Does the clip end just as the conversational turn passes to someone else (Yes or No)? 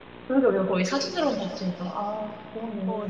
Yes